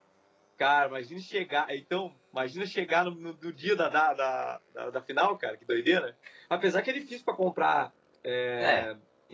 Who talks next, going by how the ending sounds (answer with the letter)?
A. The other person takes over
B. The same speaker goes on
B